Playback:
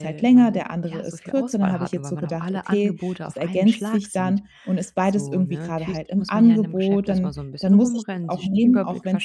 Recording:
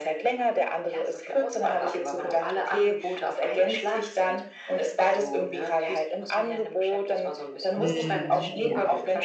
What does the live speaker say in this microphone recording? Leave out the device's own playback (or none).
mhm, ja,